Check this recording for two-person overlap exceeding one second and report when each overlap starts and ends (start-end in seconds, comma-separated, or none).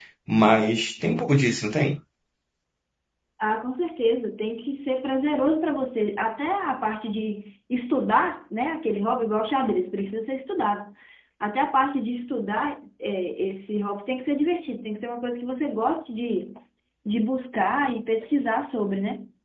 none